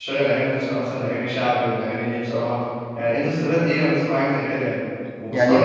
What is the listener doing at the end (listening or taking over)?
taking over